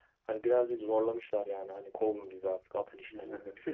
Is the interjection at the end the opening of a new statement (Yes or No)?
Yes